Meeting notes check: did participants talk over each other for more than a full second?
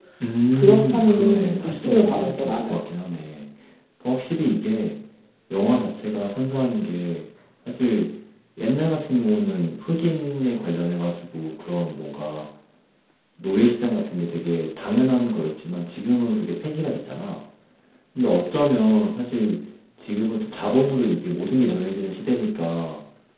Yes, from 0.5 s

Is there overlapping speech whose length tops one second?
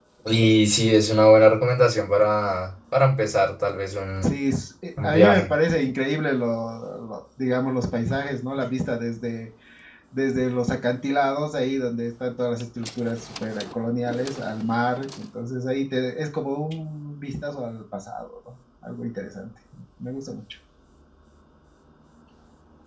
No

